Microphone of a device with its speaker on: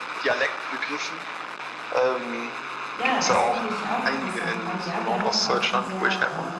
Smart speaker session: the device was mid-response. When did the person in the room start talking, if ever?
3.0 s

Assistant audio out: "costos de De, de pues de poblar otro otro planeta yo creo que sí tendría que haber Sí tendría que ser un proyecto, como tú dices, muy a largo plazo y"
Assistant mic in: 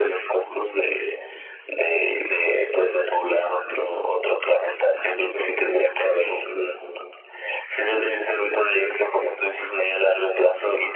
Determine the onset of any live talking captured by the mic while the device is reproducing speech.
none

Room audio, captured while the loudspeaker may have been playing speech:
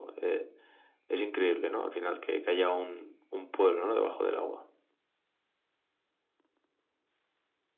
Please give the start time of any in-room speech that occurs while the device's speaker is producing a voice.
none

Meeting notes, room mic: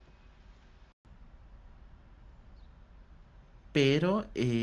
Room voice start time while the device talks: 3.7 s

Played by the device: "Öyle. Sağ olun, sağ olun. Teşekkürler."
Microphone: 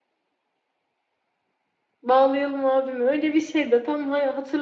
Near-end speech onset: 2.0 s

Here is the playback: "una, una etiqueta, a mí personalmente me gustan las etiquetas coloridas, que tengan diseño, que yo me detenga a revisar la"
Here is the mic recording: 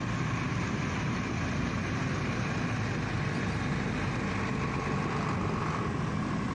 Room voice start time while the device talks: none

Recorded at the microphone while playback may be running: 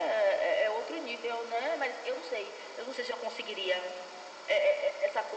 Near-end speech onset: none

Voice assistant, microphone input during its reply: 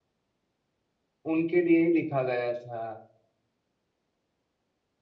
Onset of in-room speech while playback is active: 1.3 s

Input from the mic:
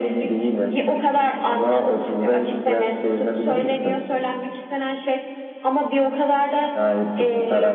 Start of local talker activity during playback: none

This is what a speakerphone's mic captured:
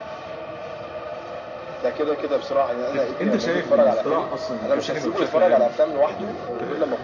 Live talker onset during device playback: 2.9 s

